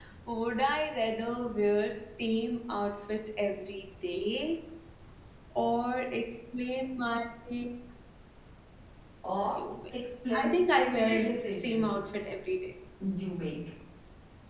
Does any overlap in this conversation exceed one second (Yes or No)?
Yes